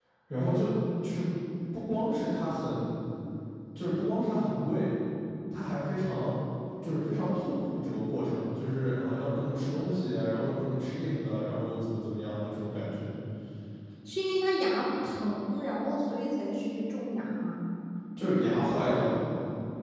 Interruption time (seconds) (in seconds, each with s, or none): none